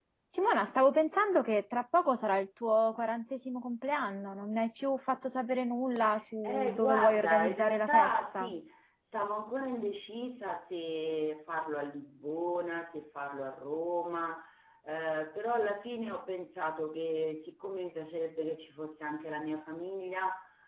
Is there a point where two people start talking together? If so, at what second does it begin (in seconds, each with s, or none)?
6.4 s